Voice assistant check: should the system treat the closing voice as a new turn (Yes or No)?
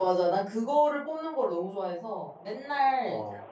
No